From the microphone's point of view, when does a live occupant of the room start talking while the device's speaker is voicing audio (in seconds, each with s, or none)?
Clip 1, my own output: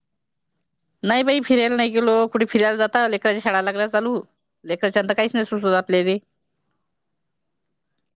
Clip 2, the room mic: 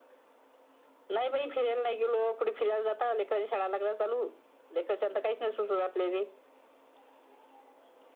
none